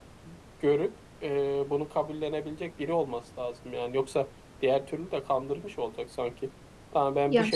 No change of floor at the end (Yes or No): Yes